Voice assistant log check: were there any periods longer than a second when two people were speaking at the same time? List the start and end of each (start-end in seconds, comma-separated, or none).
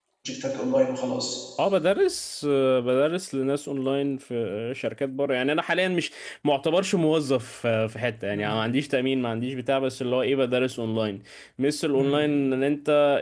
none